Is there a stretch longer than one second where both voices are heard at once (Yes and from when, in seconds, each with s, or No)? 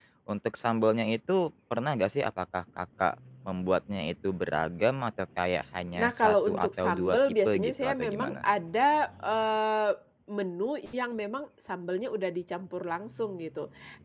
Yes, from 6.0 s